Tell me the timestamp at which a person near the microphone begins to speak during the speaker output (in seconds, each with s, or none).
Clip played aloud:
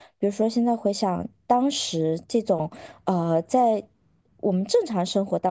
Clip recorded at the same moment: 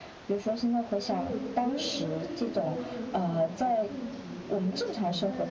0.9 s